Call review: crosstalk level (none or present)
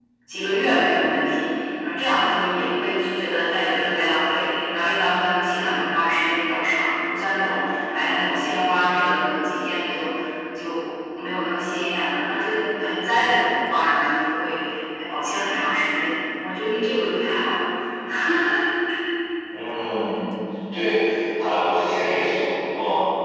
none